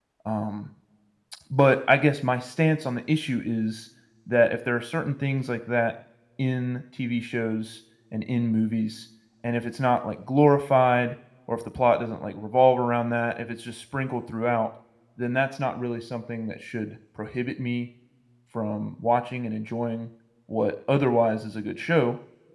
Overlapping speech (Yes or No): No